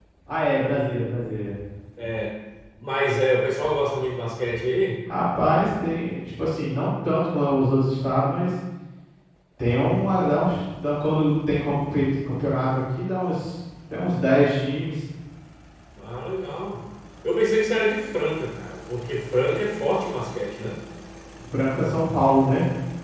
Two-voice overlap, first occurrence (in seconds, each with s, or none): none